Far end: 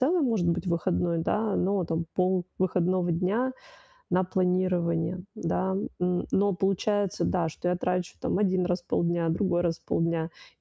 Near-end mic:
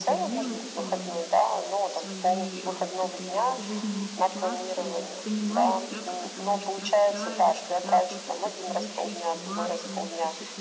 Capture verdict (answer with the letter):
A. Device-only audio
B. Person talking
B